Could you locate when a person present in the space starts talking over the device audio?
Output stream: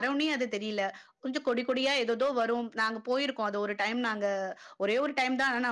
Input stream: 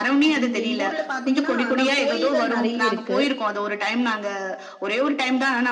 0 s

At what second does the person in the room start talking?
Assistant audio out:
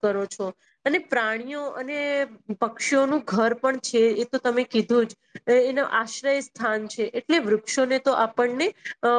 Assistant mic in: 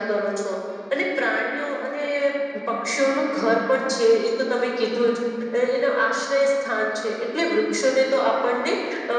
none

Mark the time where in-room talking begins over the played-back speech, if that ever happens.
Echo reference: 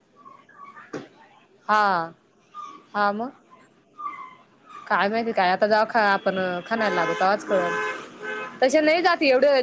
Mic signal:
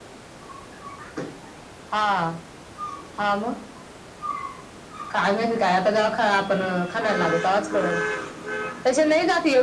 none

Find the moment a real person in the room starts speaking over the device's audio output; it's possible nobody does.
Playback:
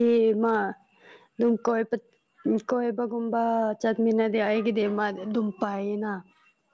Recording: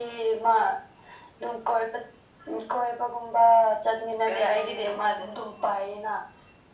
4 s

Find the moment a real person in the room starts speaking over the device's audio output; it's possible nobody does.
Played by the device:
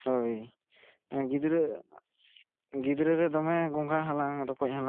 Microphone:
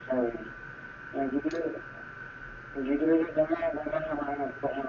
none

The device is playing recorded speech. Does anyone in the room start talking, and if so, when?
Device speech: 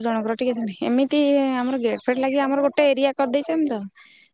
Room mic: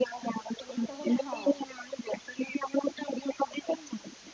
1 s

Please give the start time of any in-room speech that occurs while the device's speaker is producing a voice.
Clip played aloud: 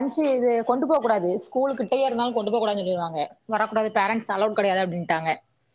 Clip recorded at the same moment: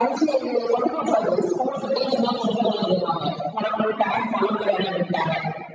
none

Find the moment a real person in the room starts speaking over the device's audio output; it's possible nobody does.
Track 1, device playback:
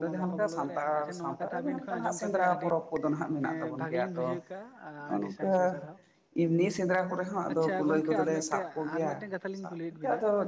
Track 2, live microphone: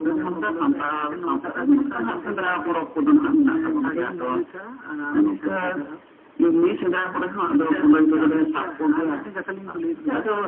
none

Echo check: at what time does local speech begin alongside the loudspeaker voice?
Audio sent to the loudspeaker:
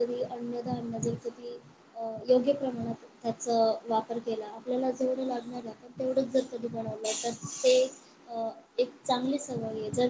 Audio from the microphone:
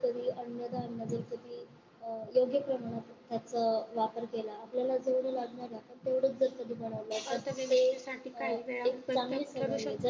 7 s

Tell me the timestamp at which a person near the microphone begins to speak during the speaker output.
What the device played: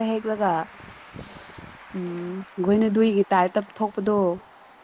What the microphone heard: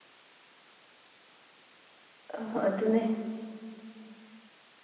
2 s

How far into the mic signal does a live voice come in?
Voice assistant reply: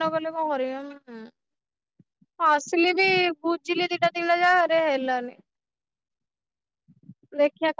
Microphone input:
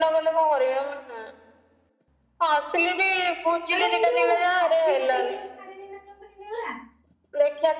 4 s

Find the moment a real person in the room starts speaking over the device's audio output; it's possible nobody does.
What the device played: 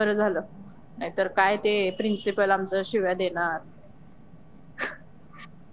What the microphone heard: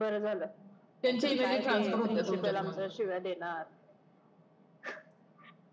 1 s

